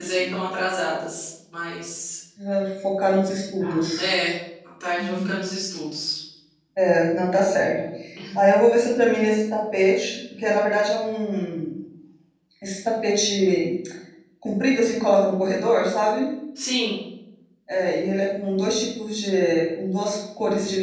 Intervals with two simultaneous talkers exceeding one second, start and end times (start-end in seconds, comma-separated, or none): none